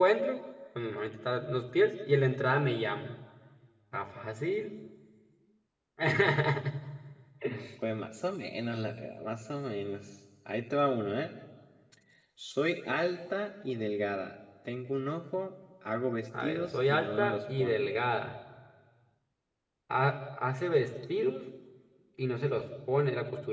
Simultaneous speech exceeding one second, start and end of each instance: 16.4-17.9

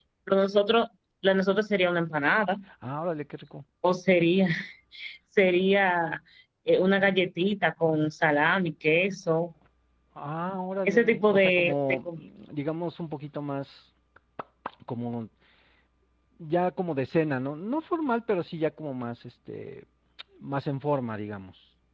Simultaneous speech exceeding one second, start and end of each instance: 10.8-12.1

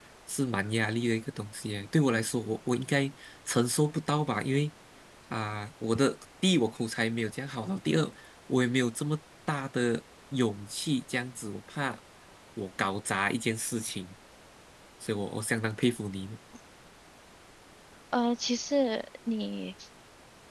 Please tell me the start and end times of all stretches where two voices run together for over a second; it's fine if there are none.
none

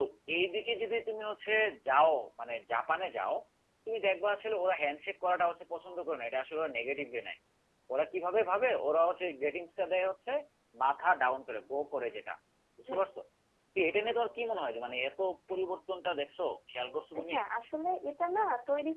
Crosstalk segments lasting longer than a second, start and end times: none

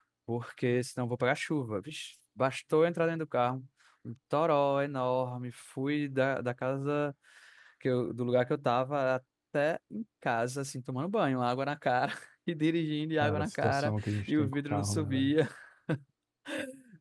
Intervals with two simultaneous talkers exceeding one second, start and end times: 13.2-15.3

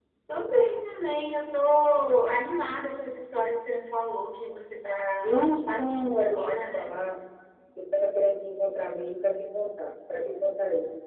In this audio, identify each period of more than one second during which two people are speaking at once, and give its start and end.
5.2-6.9

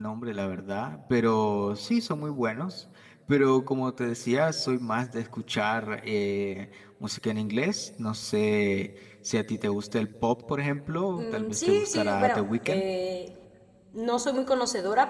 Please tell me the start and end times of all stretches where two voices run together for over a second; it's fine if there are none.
11.2-12.8

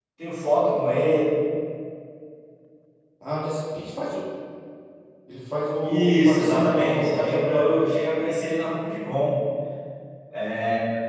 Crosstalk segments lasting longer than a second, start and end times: 5.8-7.9

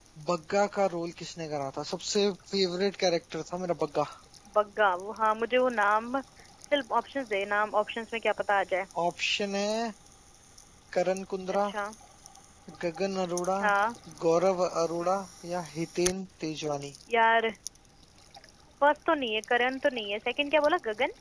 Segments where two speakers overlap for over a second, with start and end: none

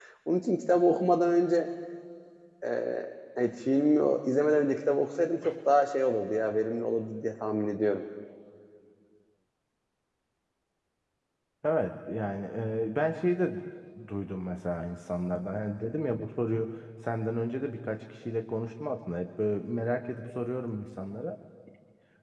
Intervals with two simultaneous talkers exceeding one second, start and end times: none

